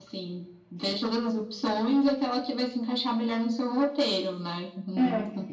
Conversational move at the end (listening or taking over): taking over